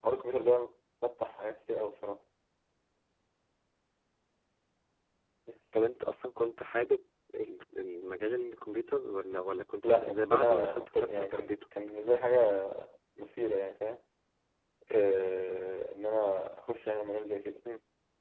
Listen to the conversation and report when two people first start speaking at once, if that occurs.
9.8 s

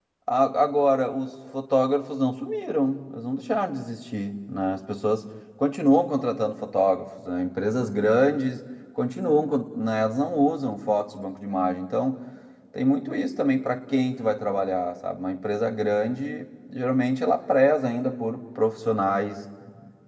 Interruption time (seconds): none

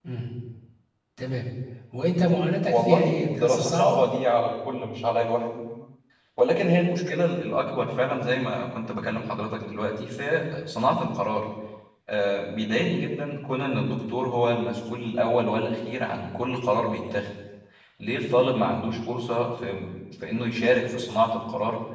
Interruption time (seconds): 2.7 s

